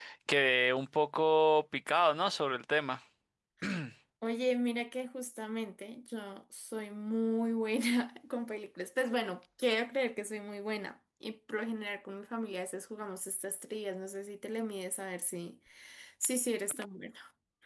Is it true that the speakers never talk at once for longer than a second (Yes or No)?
Yes